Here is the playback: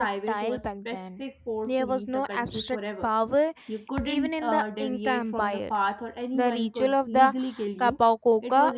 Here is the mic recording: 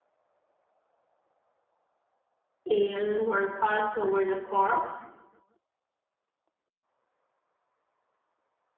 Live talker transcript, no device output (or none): ale were passed over the corpse